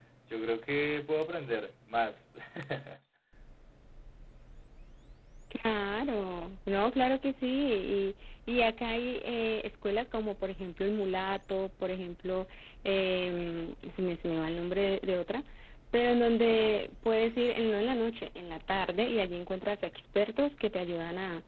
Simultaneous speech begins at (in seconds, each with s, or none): none